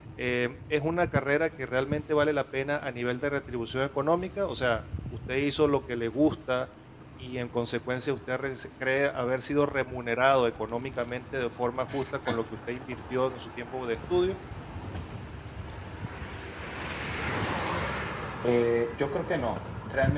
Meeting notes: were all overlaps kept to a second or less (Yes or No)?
Yes